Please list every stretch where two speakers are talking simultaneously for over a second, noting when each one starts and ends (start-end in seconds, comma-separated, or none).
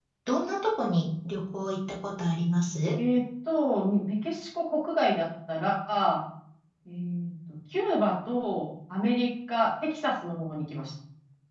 none